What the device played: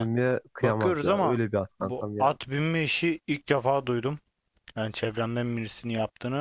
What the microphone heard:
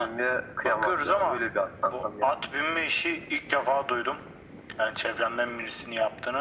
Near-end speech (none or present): none